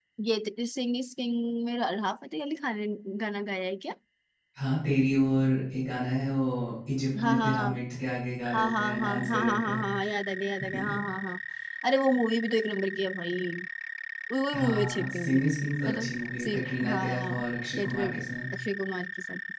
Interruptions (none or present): present